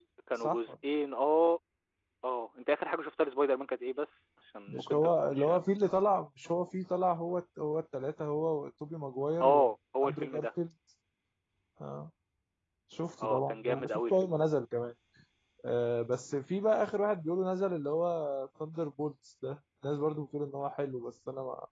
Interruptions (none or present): present